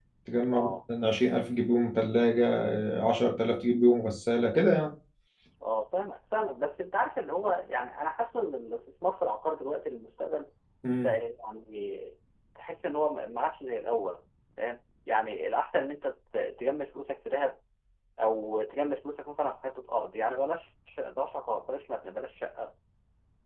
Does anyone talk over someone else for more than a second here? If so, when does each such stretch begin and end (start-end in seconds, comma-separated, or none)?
none